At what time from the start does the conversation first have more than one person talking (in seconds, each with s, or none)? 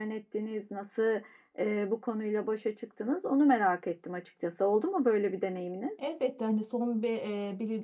none